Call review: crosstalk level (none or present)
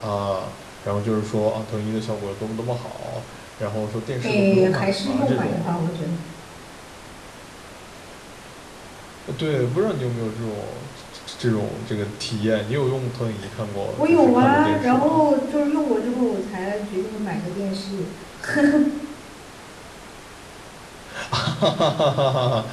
present